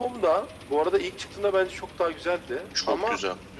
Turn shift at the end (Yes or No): No